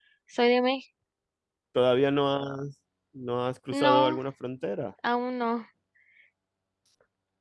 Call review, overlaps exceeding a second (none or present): none